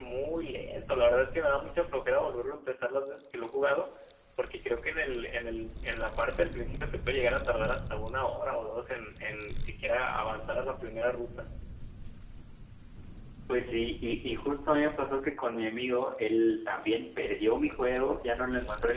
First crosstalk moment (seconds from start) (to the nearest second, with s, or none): none